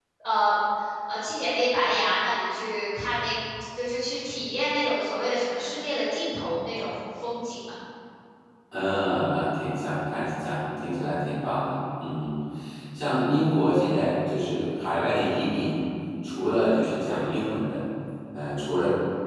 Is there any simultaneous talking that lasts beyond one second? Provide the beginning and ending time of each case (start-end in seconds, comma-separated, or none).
none